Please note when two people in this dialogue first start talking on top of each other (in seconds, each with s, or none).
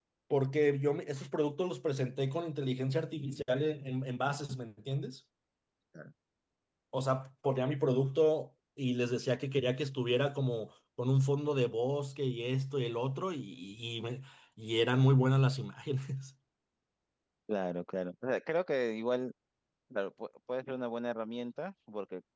none